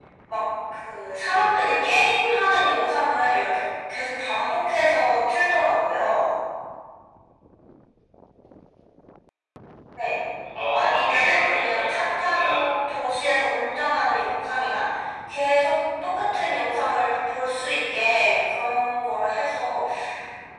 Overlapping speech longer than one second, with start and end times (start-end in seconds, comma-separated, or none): 10.7-12.6